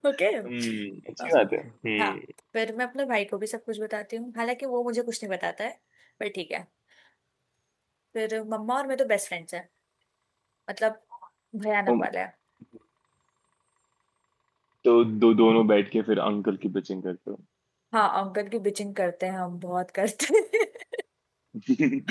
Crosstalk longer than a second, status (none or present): none